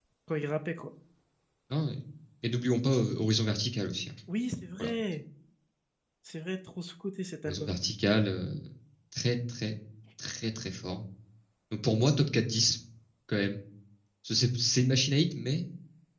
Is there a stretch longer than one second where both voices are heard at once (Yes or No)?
No